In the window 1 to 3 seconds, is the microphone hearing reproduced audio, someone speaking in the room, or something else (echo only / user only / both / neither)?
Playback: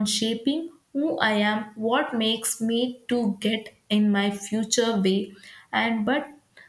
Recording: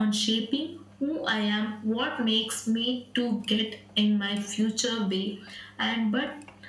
echo only